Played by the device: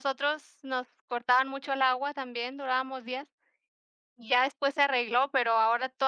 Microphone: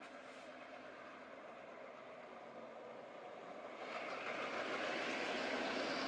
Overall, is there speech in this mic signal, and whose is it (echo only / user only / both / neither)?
neither